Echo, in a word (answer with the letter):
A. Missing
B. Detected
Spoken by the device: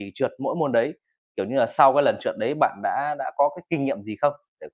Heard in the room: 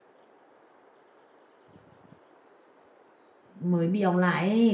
A